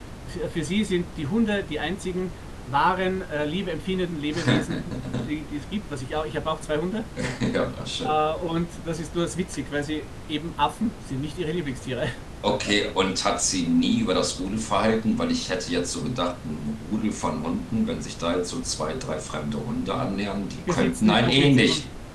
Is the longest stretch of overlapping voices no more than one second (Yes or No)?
No